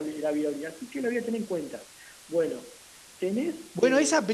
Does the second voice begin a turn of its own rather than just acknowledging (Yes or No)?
Yes